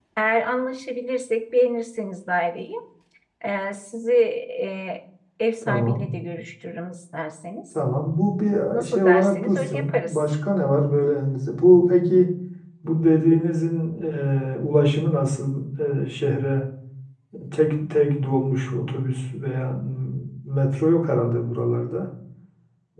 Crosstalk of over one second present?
Yes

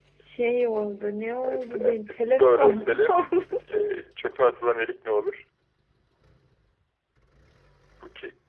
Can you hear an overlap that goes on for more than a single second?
Yes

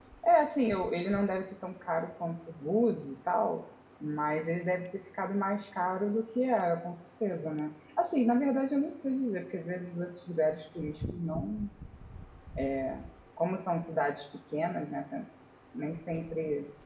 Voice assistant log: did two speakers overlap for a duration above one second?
No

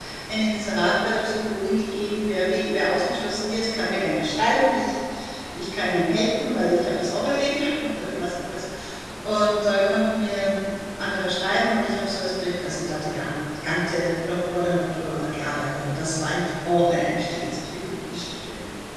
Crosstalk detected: No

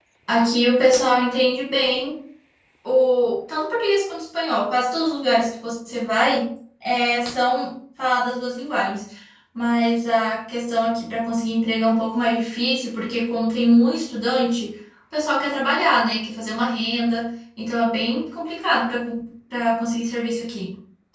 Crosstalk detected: No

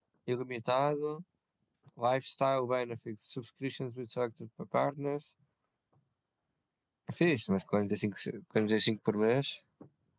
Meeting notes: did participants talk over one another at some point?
No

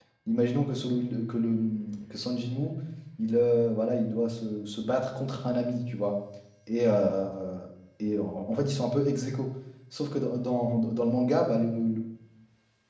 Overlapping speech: No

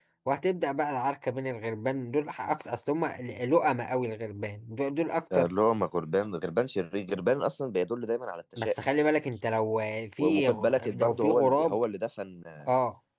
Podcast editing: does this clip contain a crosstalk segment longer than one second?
Yes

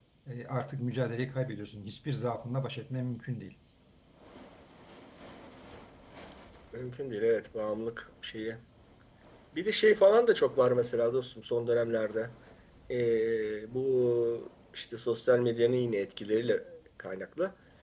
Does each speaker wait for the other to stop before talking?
Yes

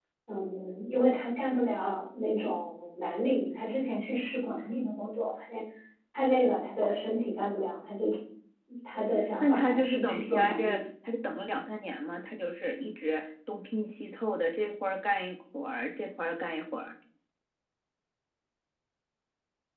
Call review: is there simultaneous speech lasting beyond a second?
Yes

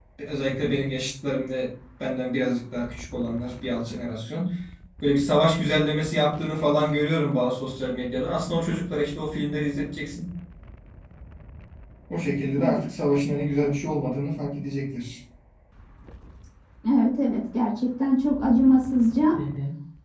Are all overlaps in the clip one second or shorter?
Yes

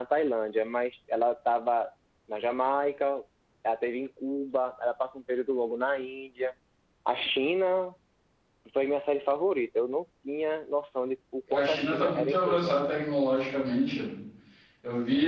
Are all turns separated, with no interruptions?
No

